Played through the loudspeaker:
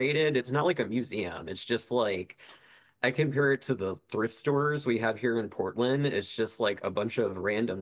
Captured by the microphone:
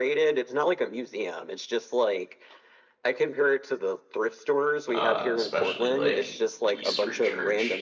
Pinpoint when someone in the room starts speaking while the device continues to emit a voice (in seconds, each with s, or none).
4.9 s